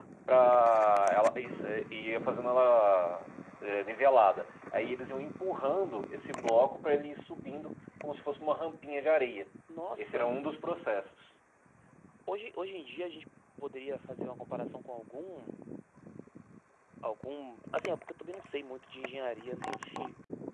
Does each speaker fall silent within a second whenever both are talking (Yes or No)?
Yes